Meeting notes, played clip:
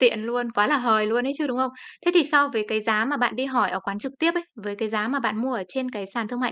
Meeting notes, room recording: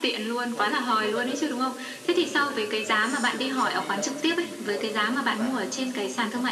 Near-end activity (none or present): present